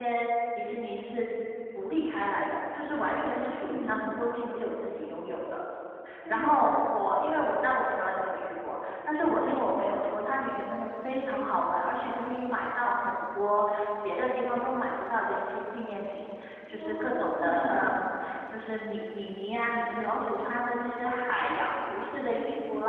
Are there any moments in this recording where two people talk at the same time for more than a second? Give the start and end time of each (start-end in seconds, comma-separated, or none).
16.7-18.1